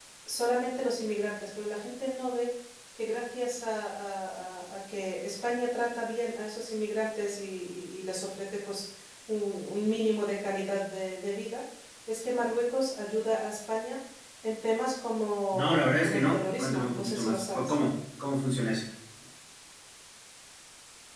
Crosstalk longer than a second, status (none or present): present